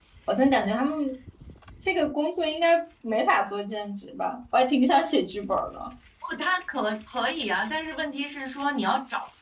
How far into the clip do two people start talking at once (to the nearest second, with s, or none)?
none